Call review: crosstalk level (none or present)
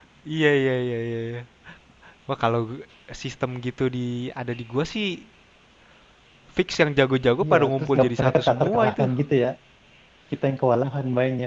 present